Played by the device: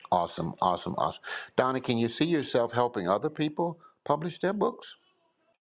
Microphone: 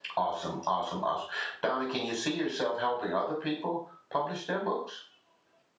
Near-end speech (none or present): none